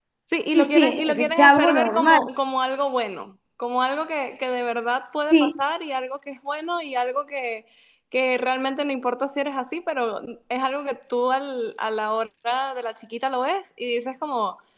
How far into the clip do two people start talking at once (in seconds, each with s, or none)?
0.5 s